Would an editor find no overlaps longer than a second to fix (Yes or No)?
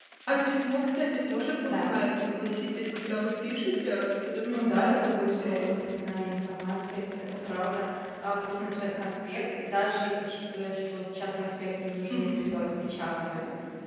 No